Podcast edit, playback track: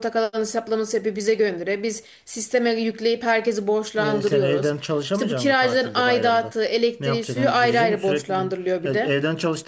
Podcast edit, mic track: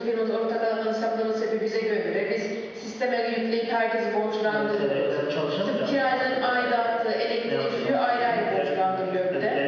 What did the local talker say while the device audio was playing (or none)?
none